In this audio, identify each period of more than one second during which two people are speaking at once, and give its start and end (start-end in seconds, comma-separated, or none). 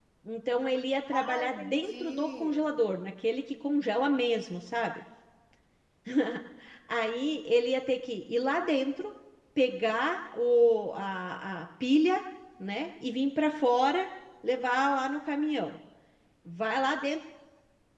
1.1-2.6